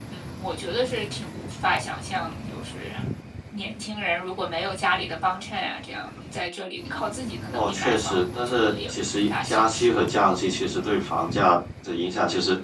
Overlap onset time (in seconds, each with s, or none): 7.5 s